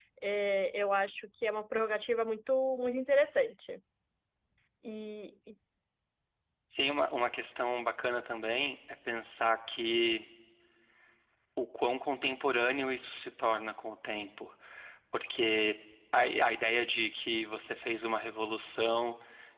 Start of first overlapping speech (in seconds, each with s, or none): none